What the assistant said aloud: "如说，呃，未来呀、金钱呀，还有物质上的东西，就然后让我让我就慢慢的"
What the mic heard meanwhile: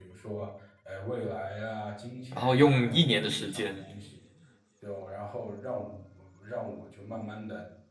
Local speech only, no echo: 然后用一年的时间，

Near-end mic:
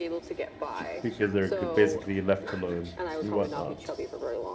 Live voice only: Because they're g- basically left alone and whatnot.

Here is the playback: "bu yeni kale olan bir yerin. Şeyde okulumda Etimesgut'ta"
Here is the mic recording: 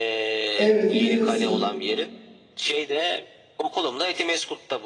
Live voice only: evet yürüyorsun

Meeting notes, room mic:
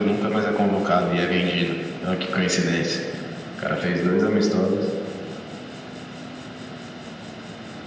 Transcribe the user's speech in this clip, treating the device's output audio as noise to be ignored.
none

